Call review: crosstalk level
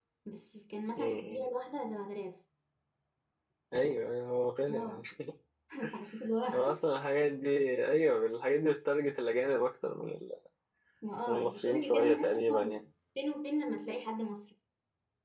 present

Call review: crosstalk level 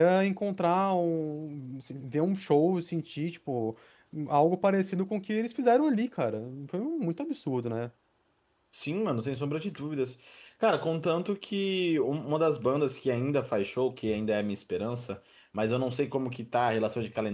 none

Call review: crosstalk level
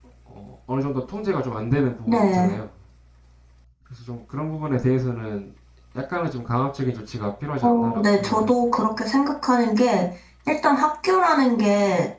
present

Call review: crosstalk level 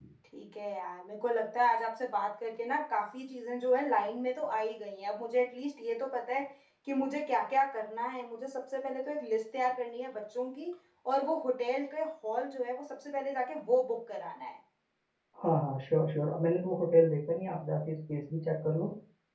none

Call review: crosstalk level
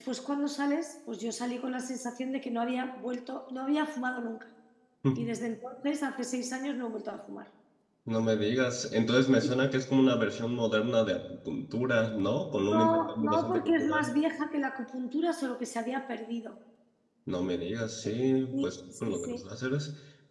present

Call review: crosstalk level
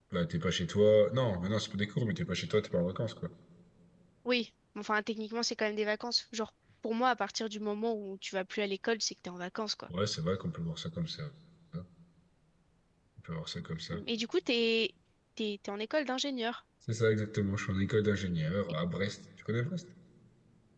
none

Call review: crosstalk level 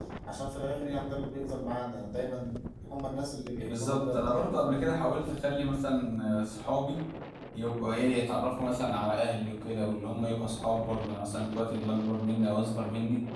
present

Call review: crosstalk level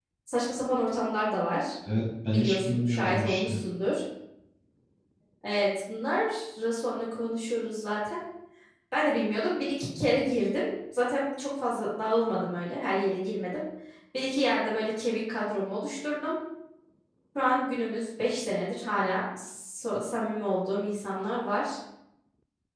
present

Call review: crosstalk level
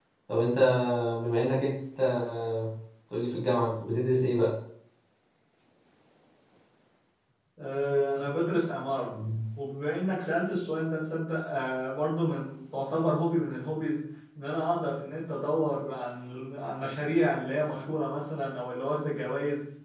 none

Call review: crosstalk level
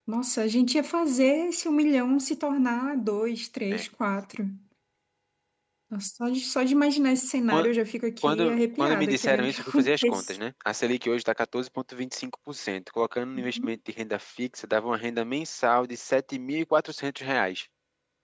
present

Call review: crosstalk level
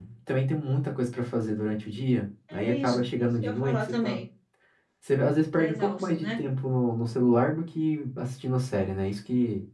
present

